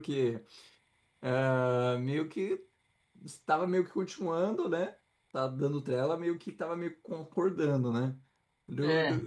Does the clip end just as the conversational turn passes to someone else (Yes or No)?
No